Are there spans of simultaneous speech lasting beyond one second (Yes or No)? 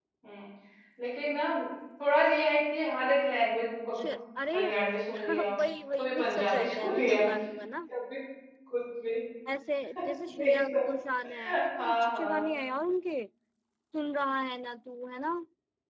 Yes